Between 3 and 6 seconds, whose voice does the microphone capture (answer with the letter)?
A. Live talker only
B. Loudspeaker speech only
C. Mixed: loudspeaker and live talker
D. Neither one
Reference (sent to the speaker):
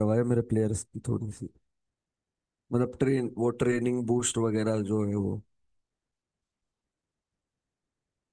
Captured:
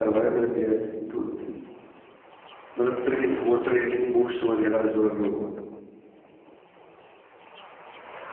B